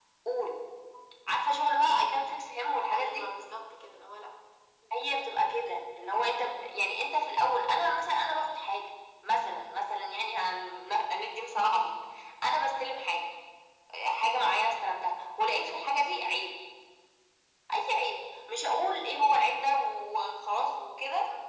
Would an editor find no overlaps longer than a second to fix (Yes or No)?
Yes